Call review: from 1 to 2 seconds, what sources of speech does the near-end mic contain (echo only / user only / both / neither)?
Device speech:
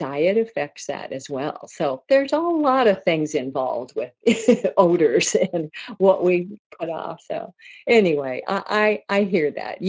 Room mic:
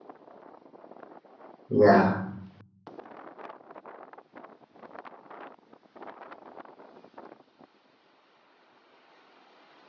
user only